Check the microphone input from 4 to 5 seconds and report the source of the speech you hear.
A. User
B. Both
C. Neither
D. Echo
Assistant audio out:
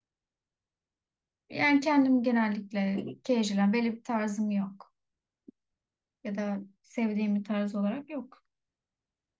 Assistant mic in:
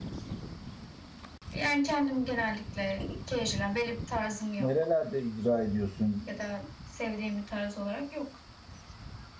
B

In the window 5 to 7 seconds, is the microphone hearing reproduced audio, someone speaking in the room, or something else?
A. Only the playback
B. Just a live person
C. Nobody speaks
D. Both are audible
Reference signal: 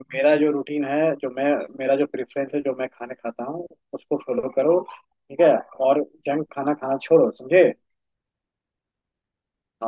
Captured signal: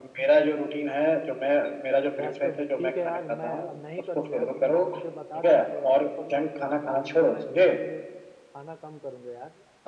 D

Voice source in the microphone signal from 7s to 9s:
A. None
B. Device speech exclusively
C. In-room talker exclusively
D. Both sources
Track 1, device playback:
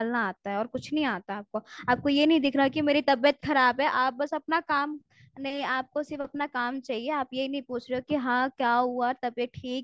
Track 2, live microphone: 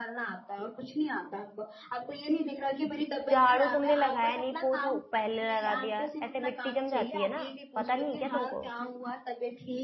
D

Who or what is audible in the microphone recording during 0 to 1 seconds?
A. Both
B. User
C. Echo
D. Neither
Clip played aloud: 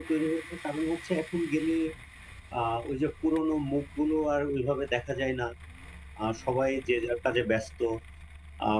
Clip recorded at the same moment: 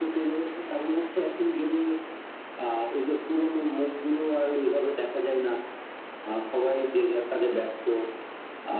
C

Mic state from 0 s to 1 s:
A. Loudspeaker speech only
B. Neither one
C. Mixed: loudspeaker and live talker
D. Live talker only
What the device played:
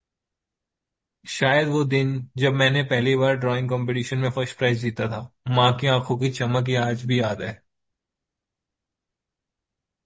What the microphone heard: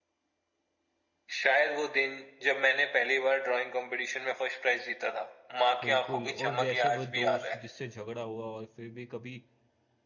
B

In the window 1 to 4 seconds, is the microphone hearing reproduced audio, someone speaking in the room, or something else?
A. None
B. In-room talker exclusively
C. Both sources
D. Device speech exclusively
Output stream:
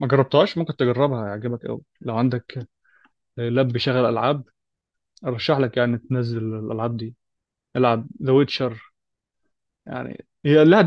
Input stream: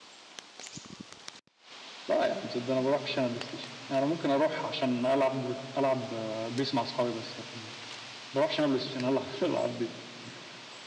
B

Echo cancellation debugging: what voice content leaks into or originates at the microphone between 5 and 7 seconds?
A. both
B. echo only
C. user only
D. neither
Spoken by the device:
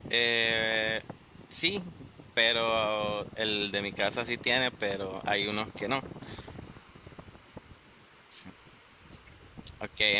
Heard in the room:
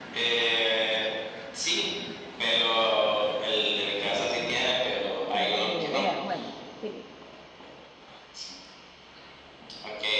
A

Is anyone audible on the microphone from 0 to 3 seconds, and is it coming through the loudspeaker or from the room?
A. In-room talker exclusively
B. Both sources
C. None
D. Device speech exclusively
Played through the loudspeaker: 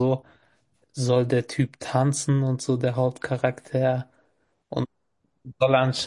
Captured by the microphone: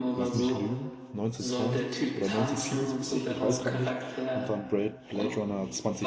B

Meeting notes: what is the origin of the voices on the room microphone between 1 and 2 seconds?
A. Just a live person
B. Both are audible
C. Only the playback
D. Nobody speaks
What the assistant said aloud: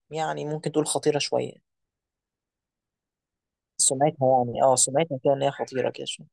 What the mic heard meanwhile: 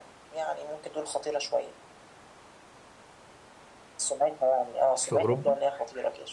C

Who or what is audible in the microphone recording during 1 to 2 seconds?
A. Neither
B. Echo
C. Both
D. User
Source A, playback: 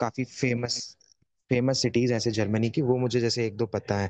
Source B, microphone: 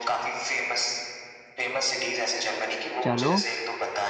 B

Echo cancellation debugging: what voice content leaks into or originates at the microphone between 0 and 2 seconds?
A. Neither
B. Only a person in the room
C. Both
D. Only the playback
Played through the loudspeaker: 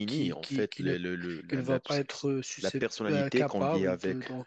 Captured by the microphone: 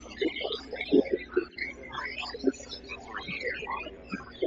D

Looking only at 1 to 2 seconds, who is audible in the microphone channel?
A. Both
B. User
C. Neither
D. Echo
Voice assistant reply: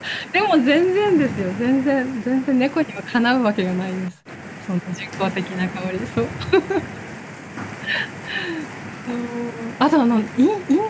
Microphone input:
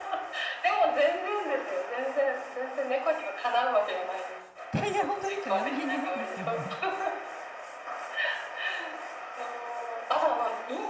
D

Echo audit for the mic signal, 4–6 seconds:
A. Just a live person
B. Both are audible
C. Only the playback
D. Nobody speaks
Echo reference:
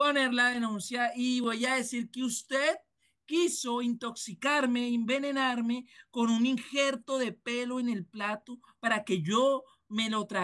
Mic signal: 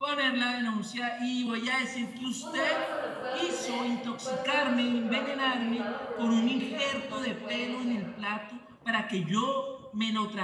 B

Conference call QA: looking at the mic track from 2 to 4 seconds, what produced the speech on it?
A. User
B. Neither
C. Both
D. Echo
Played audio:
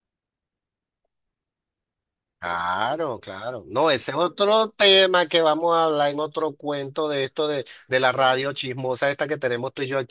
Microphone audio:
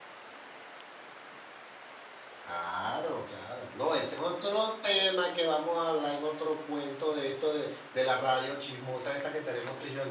D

